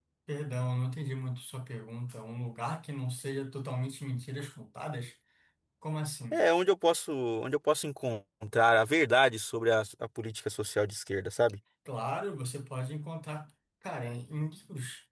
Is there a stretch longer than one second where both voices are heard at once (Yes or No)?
No